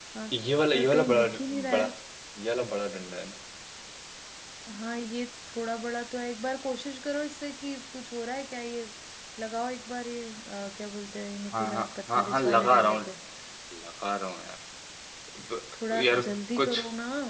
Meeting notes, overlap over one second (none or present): present